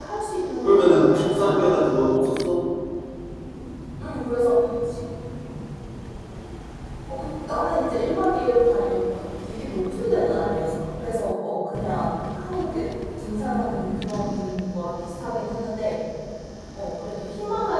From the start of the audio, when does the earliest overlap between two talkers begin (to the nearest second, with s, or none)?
1 s